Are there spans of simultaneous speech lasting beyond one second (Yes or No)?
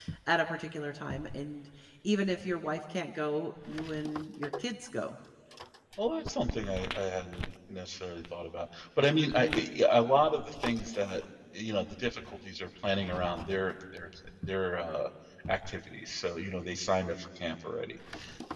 No